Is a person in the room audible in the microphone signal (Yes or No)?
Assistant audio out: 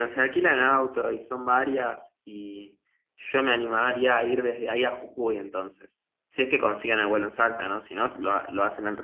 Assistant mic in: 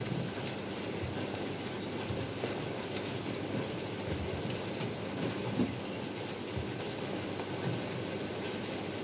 No